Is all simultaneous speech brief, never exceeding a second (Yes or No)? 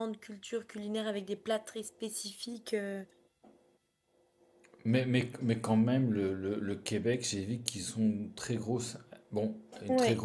Yes